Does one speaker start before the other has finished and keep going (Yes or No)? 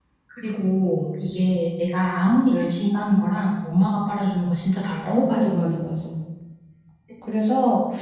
No